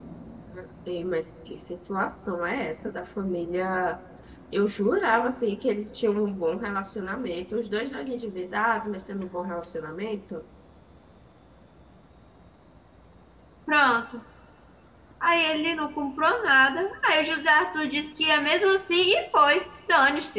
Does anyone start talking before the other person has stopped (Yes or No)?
No